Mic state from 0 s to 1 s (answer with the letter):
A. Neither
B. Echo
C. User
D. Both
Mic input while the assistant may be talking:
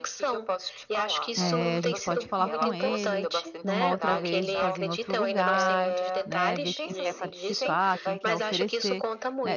B